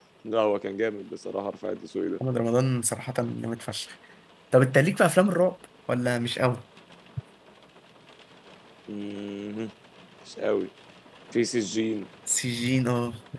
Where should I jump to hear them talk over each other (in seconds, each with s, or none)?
none